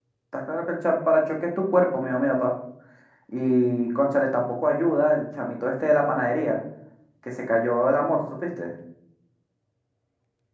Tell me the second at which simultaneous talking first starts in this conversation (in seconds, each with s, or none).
none